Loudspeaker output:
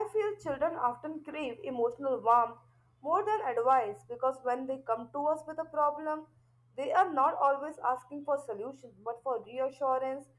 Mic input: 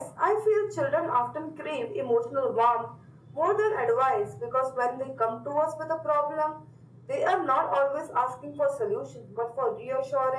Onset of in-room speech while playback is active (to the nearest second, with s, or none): none